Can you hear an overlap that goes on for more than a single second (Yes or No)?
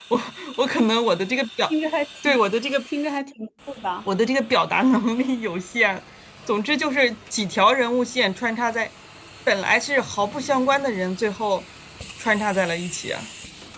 No